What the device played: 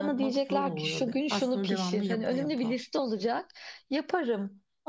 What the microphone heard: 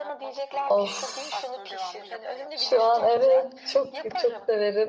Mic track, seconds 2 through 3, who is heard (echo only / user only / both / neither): both